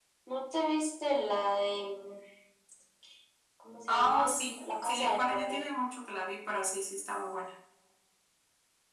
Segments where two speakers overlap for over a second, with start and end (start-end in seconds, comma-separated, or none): 3.9-5.6